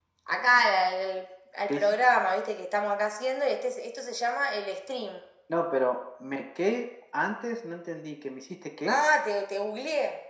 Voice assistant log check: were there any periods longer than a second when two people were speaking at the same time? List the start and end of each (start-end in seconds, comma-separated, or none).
none